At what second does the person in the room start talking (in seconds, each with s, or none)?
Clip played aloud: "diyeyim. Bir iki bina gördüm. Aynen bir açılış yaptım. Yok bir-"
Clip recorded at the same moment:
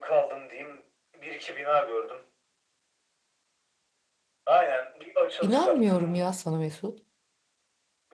5.4 s